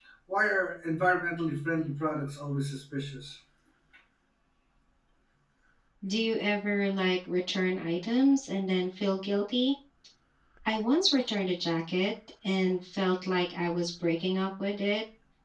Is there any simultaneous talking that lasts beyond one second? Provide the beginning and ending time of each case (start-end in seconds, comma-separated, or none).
none